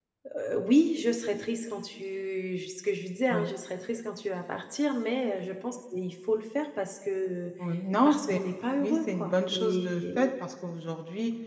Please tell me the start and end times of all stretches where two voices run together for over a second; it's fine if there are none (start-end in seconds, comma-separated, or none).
8.8-10.0